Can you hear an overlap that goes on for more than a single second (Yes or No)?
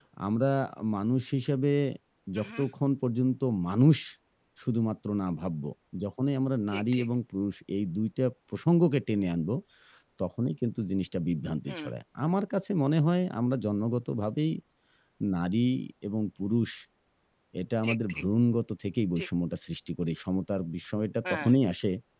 No